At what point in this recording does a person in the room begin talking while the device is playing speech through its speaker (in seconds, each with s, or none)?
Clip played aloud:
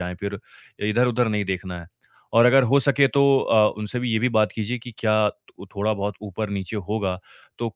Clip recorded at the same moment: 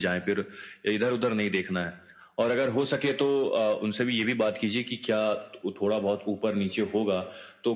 none